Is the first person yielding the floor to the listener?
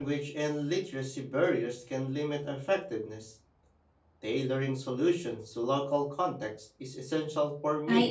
Yes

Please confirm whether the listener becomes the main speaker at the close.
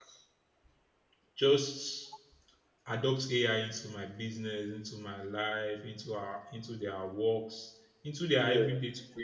No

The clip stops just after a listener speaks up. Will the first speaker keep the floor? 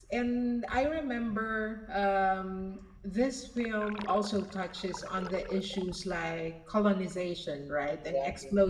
Yes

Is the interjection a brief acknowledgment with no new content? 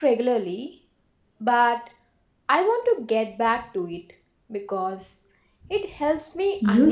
No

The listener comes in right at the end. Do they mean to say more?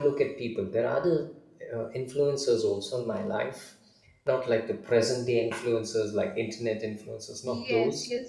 Yes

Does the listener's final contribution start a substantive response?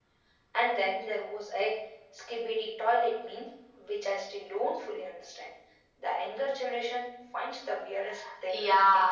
Yes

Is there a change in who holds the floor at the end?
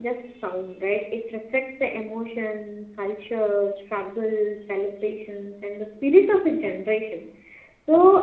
No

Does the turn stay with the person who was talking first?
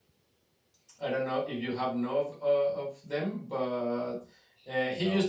Yes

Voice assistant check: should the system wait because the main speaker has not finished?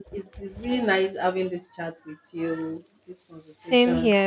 No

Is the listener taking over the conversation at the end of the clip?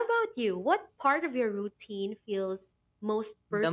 Yes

